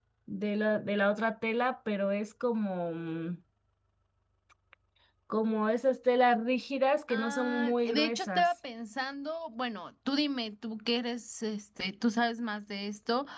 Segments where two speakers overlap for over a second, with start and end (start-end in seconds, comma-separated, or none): 7.1-8.5